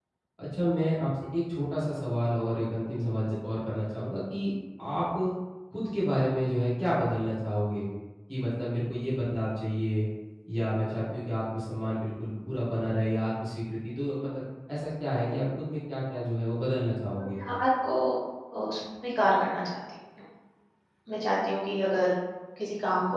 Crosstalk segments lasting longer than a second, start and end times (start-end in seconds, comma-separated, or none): none